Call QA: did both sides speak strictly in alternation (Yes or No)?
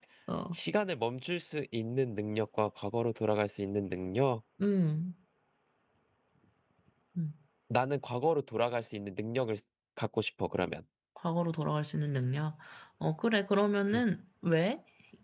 Yes